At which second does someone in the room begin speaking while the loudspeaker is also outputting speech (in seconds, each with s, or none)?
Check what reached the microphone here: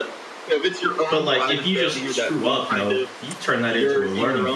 1.1 s